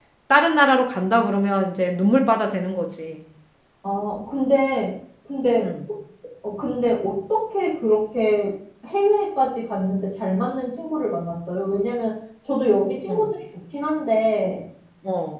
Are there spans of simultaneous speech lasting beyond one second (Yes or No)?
No